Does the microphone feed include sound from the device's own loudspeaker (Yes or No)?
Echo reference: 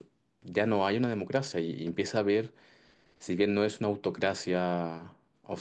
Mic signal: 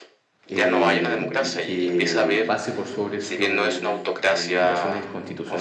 Yes